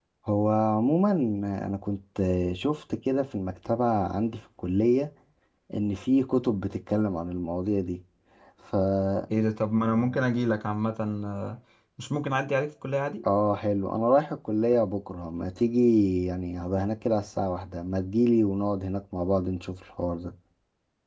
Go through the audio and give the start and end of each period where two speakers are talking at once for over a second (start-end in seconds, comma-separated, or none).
none